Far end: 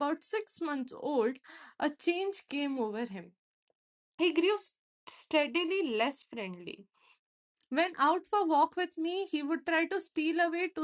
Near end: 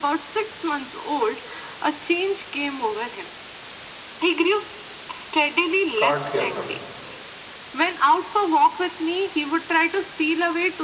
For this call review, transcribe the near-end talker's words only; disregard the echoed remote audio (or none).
can't hear her.